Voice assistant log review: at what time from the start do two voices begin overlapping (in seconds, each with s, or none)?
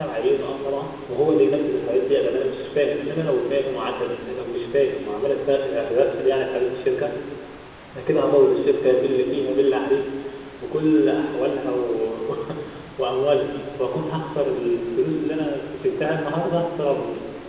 none